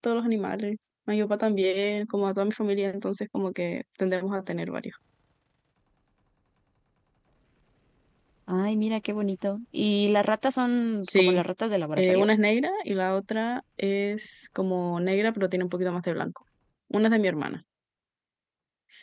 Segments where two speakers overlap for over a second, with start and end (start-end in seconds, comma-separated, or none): none